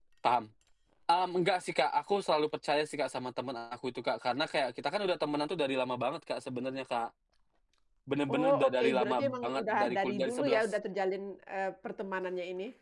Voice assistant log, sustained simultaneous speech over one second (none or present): present